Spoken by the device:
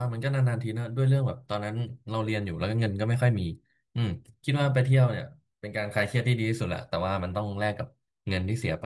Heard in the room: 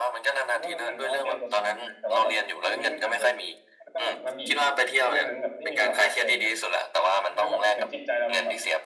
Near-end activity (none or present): present